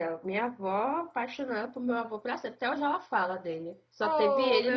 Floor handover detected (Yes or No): Yes